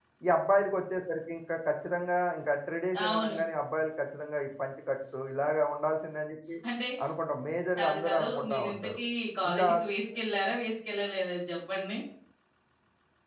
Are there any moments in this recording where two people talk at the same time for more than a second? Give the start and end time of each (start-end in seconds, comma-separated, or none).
7.8-9.0